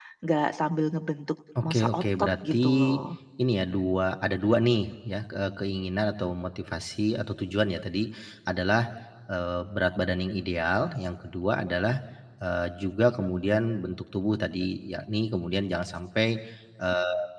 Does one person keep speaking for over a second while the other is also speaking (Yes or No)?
Yes